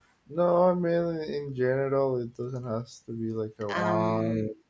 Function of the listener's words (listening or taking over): listening